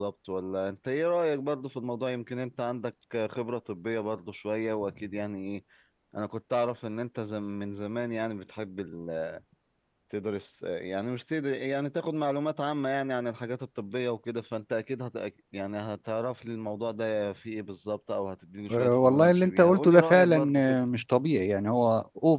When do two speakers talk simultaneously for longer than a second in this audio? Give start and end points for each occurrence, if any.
18.7-20.8

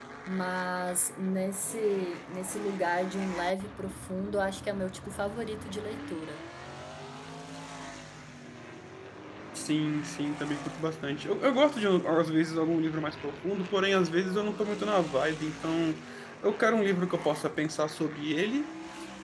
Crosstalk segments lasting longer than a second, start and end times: none

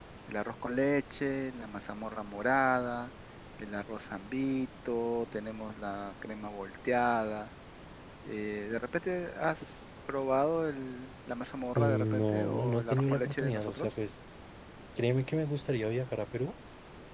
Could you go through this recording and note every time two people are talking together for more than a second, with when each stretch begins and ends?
11.8-14.0

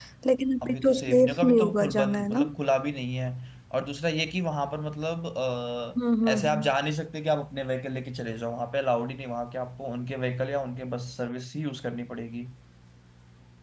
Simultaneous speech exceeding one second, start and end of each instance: 0.6-2.4

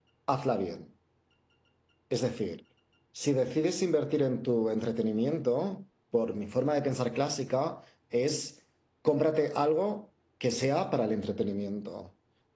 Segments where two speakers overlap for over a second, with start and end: none

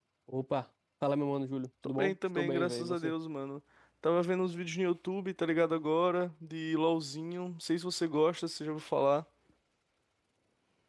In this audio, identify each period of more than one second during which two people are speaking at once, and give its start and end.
1.8-3.1

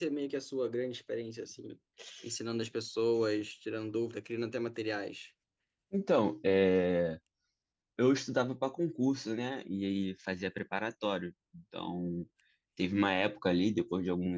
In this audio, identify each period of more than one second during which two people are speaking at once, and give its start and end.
none

